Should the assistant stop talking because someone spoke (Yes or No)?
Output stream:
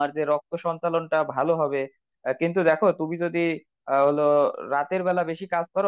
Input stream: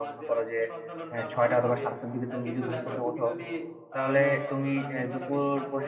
Yes